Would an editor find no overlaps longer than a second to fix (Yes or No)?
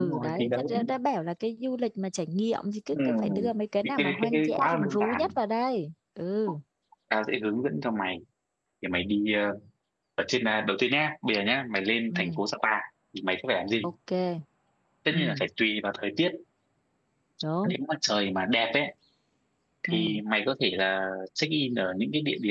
No